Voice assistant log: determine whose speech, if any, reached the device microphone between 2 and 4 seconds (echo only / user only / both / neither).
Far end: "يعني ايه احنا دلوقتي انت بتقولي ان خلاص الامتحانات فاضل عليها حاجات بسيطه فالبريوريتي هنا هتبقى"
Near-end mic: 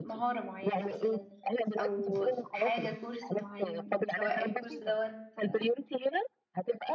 both